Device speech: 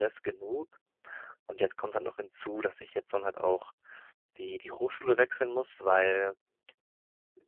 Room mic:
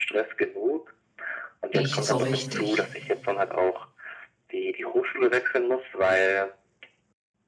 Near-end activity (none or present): present